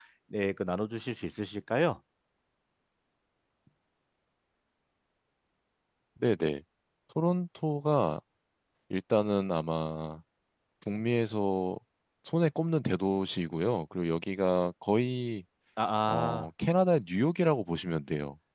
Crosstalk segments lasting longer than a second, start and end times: none

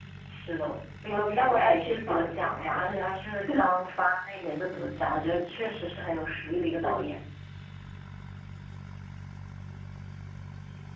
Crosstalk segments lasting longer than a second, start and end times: 1.1-2.8

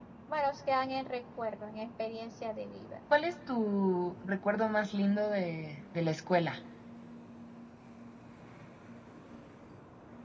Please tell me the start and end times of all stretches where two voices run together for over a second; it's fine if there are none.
none

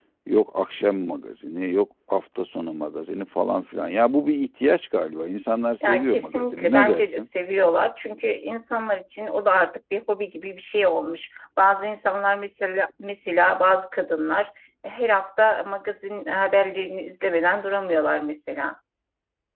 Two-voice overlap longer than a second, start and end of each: 5.8-7.2

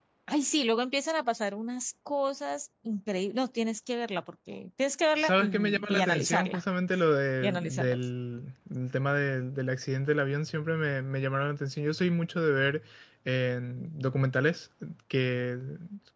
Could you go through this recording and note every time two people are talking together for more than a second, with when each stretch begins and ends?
5.2-6.6

